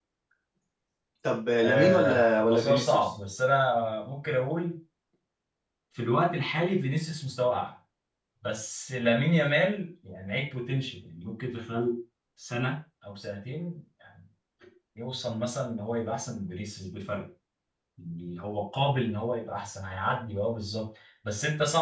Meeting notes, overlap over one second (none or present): present